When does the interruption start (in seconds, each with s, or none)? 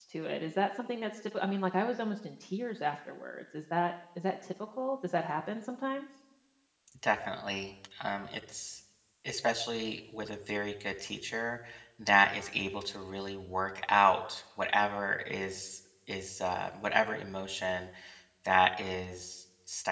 none